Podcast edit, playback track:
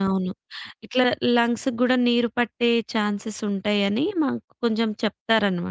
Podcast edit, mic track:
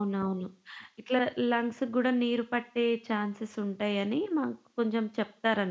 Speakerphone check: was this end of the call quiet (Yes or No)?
Yes